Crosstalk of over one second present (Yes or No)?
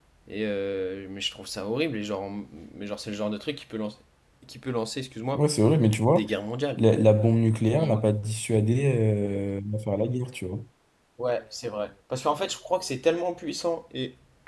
No